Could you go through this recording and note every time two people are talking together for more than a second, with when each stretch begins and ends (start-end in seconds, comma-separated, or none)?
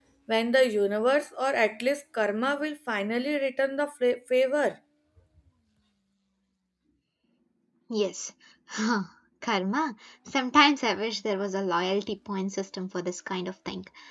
none